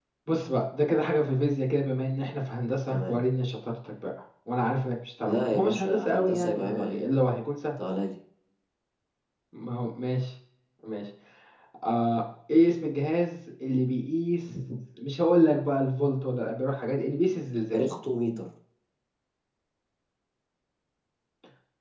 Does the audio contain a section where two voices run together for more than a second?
Yes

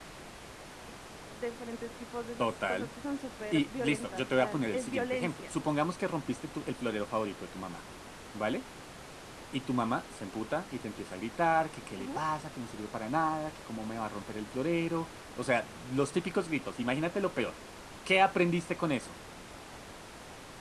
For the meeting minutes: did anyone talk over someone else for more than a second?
Yes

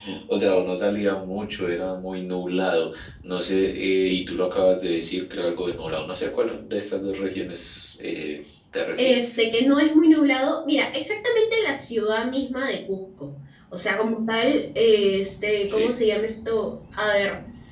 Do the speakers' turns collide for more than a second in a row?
No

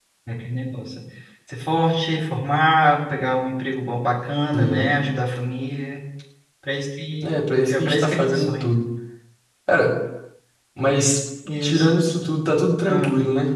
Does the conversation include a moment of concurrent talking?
Yes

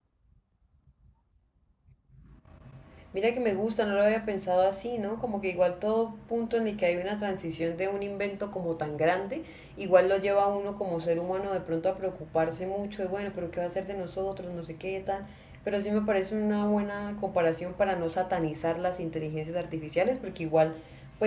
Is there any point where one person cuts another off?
No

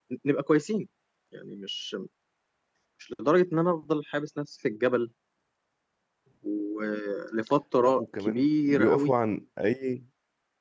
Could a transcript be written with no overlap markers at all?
No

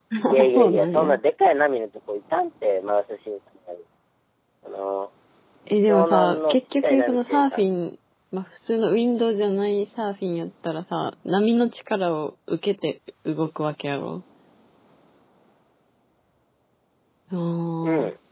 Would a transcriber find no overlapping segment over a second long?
No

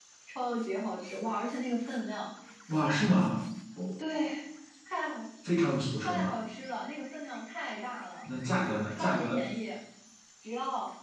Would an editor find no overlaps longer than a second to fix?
Yes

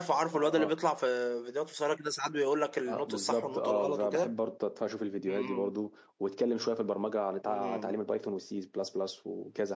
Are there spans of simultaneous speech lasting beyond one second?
Yes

